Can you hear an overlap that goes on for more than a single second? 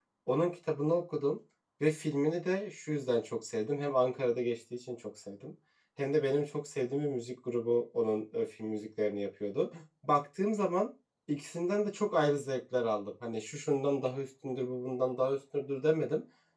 No

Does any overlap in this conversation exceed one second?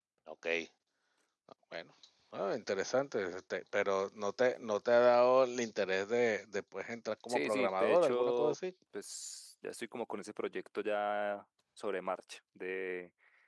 Yes, from 7.3 s

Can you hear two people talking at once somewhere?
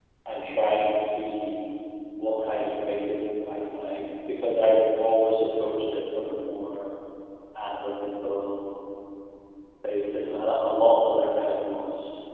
No

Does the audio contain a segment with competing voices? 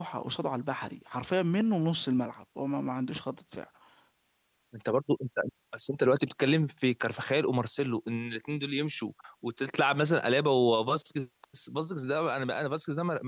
No

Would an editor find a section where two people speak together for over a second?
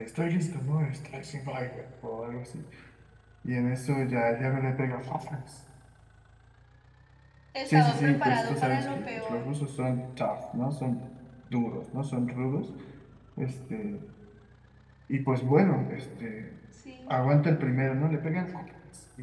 Yes, from 7.7 s

